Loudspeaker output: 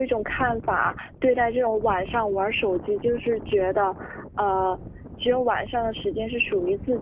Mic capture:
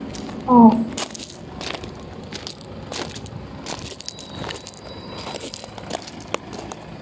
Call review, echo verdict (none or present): none